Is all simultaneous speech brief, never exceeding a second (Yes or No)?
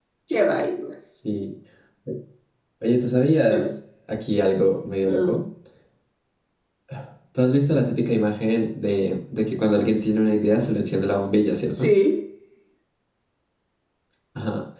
Yes